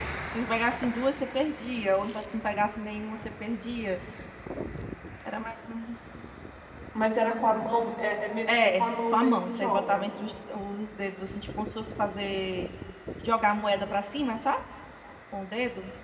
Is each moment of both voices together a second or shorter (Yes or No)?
No